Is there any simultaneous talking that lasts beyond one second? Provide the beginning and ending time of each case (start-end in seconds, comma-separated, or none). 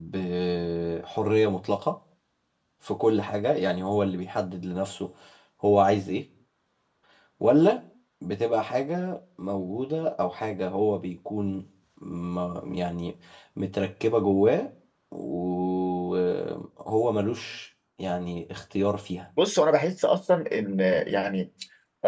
none